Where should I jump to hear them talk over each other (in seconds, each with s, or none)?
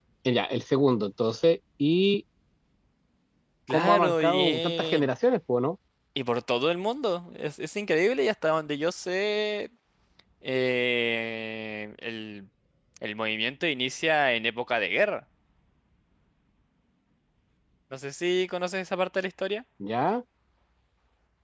3.7 s